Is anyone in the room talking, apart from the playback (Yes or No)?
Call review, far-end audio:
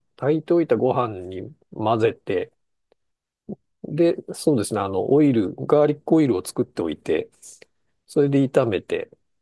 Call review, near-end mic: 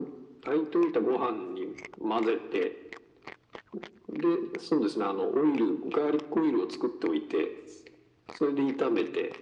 No